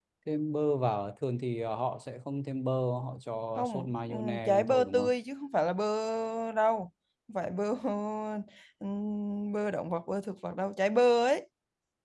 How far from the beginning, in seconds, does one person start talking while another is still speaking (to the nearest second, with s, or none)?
4 s